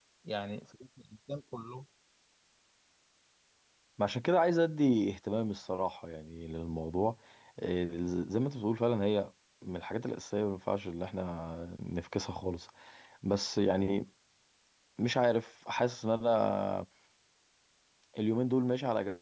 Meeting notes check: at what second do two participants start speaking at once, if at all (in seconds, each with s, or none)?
none